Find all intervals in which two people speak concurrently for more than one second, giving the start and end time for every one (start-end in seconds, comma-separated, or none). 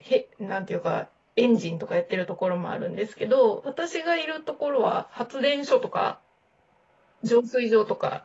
none